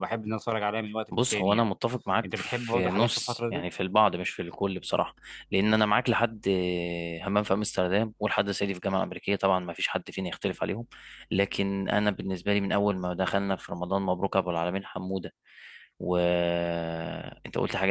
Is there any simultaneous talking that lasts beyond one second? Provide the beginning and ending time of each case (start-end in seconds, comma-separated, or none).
2.4-3.6